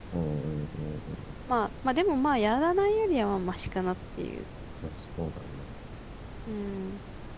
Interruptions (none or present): none